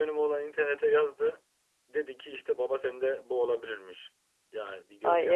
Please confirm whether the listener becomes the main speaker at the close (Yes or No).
Yes